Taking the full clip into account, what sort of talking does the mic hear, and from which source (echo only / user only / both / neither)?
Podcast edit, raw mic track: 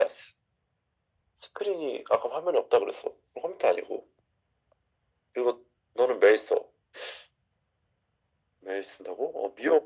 echo only